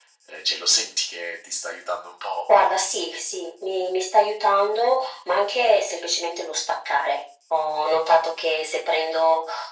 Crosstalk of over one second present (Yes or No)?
No